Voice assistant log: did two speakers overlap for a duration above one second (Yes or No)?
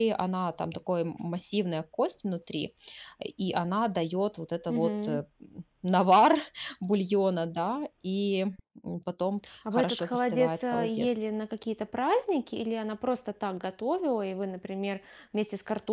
Yes